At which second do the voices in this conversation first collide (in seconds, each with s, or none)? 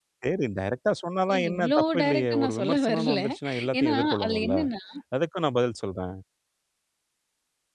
1.3 s